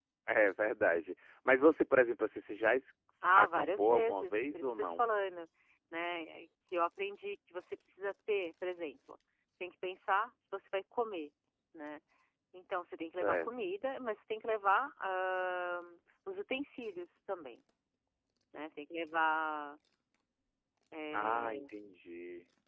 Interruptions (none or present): present